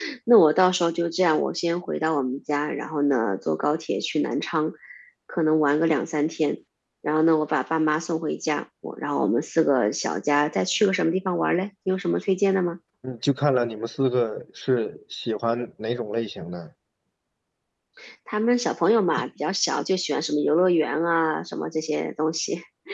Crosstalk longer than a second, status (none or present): none